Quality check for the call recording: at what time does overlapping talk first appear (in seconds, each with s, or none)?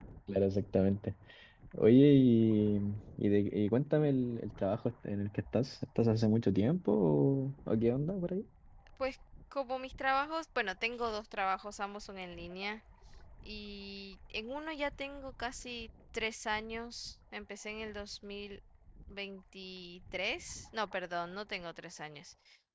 none